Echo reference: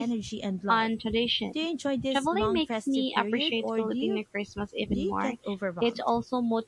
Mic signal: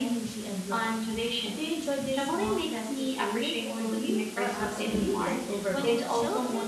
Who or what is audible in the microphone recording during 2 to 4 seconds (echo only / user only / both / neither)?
echo only